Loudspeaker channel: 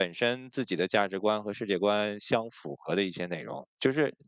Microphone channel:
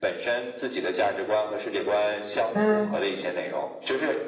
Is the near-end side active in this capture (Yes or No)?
Yes